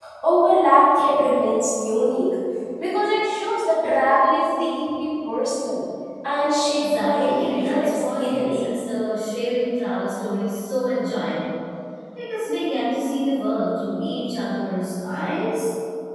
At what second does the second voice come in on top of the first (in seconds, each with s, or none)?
6.6 s